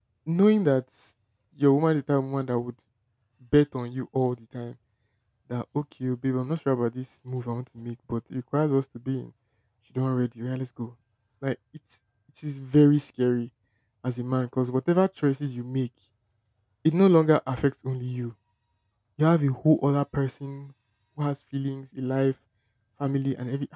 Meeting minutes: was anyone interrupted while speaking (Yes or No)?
No